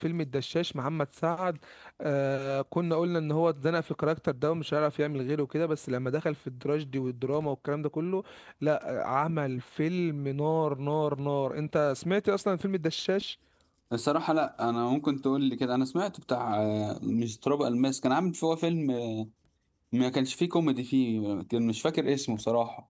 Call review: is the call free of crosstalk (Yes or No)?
Yes